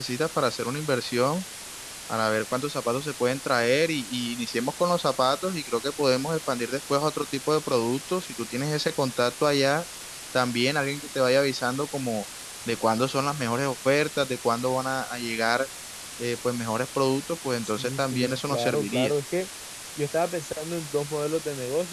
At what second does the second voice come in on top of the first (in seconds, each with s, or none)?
17.6 s